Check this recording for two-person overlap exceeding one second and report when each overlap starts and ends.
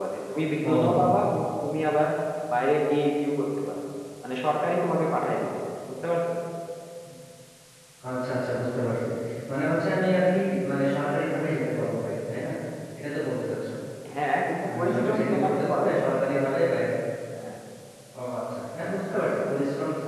14.6-16.2

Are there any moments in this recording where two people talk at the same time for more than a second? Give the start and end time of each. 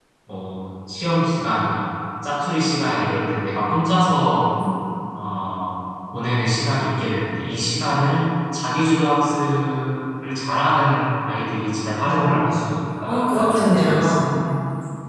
13.1-14.3

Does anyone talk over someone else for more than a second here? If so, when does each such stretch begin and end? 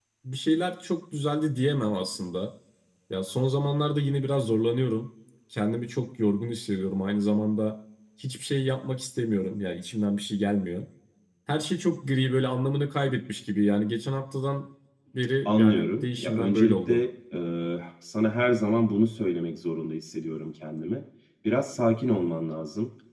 15.4-17.0

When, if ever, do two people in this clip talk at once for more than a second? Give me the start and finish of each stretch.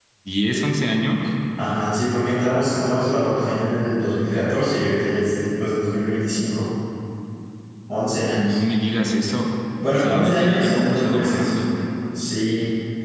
9.9-11.5

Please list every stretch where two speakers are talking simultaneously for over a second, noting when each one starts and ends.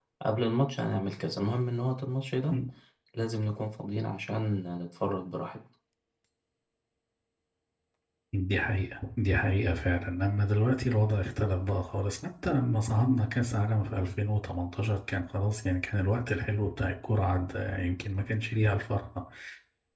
none

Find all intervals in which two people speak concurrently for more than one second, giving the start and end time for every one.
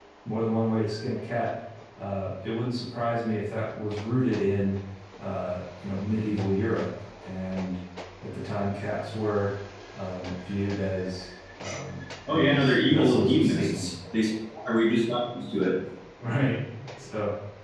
12.3-13.9

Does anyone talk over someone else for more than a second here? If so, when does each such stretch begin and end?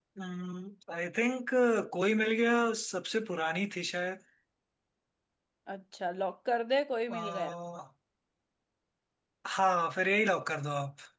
none

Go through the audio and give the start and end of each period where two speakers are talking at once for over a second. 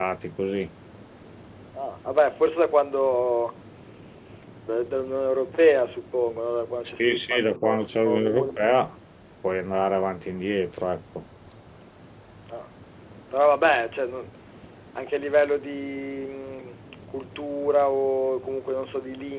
7.0-8.6

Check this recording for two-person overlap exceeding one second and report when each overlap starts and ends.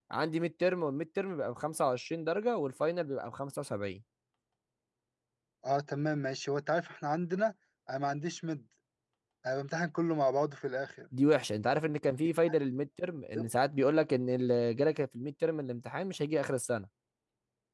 none

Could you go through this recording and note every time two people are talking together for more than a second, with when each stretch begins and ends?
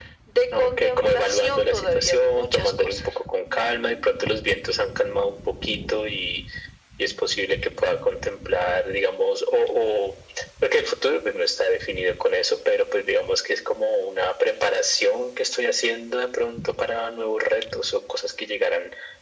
0.5-3.0

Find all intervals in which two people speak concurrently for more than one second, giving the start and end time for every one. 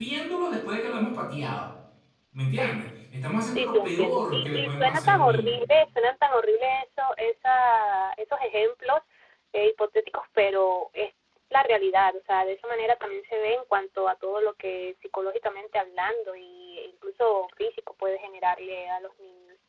3.6-5.6

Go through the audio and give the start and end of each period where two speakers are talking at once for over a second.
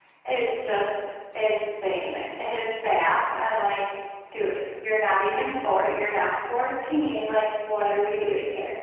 none

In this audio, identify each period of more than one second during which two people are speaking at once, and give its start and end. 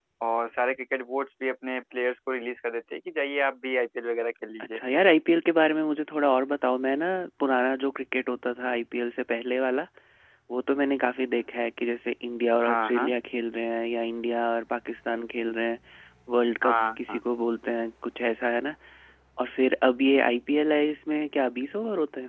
none

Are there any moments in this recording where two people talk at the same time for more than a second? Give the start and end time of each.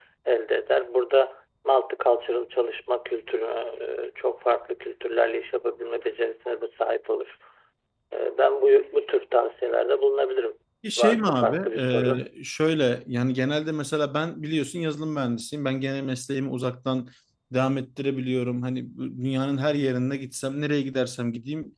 11.0-12.2

